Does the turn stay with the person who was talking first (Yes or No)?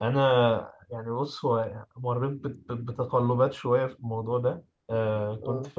Yes